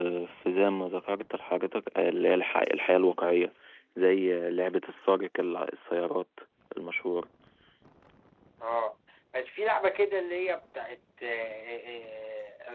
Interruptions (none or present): none